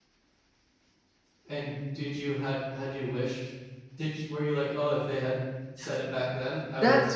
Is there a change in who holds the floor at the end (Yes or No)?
Yes